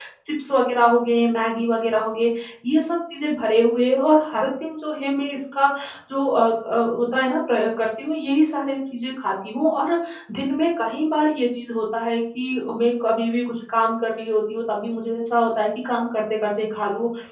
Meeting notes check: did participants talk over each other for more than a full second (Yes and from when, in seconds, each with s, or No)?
No